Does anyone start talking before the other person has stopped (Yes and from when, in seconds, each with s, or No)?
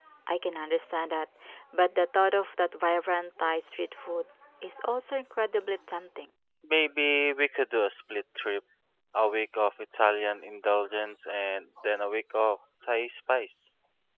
No